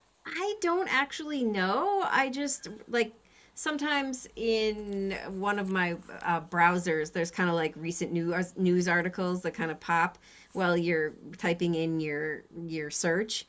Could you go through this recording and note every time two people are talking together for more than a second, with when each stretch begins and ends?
none

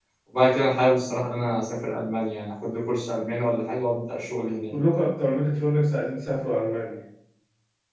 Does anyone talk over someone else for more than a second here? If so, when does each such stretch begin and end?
none

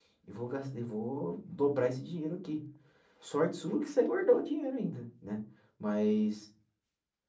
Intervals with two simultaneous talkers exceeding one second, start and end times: none

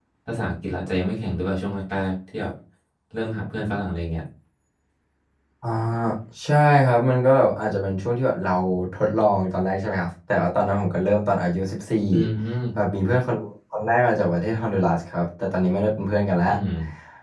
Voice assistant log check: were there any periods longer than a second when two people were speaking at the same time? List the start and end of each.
none

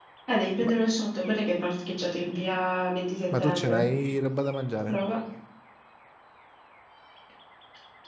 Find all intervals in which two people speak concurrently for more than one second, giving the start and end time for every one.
none

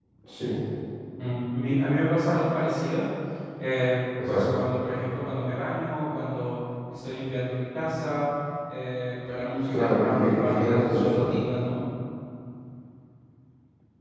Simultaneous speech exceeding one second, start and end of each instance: 9.7-11.2

